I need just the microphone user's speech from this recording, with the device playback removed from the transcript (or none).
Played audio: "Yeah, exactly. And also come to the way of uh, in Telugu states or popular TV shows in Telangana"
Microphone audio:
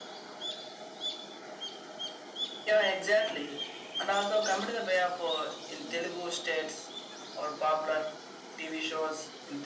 none